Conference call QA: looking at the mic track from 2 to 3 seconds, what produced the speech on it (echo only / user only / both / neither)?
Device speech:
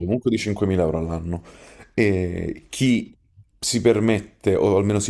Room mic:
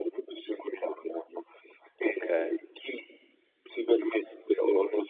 both